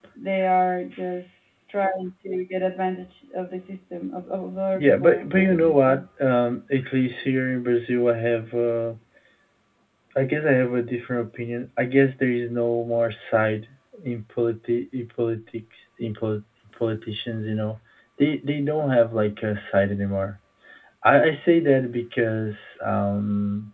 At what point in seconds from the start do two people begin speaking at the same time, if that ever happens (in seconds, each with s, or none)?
4.8 s